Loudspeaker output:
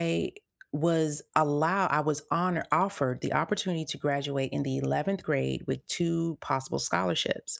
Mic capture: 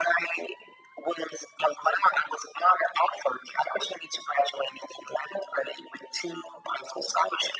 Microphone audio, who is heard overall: echo only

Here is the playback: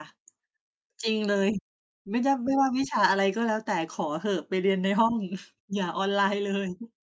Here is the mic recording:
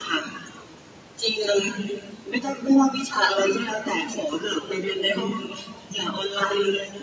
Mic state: echo only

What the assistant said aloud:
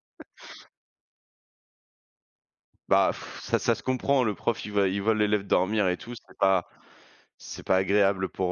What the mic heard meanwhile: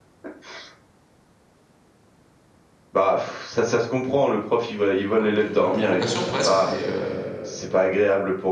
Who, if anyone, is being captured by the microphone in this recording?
both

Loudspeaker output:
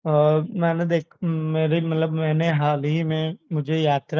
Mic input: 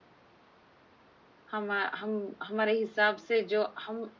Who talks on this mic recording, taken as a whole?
user only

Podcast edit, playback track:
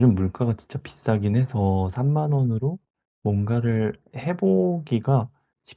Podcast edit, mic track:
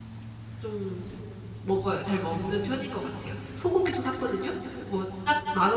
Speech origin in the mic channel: user only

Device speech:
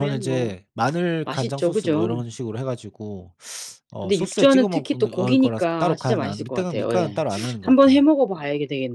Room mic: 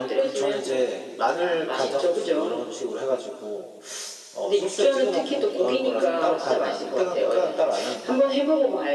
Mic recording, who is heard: echo only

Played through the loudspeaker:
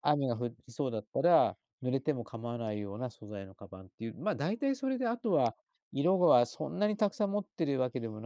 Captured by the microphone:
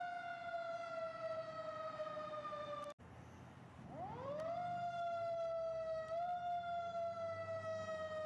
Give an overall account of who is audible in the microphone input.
neither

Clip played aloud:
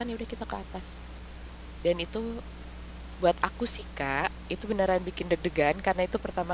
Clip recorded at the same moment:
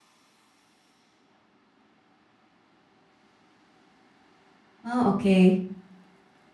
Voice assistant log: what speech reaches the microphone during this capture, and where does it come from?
user only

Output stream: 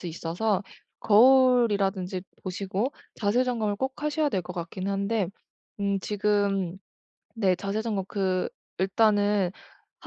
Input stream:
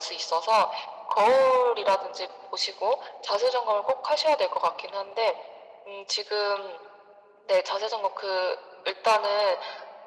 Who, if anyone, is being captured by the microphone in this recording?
echo only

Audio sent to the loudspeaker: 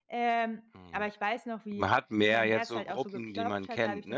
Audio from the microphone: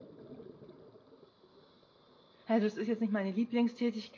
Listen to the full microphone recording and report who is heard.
user only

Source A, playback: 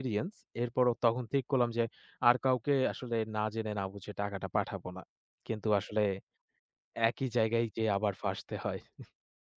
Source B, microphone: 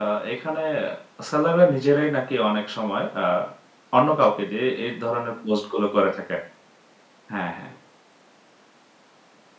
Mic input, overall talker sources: user only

